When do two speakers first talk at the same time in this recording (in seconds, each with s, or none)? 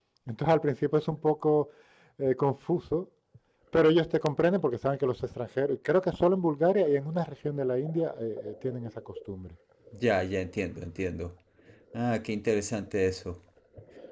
none